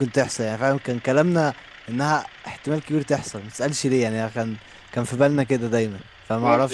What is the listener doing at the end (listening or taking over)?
taking over